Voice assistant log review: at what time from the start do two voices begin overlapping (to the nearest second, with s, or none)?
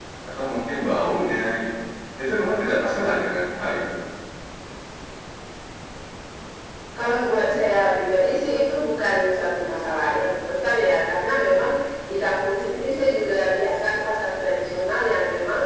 none